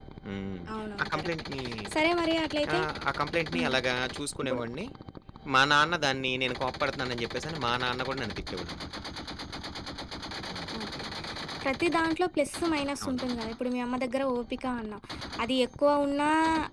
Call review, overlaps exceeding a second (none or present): none